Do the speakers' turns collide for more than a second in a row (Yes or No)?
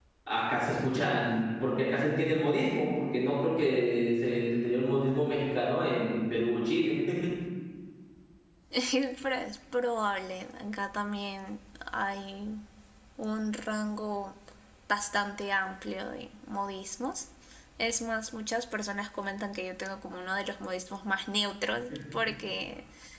No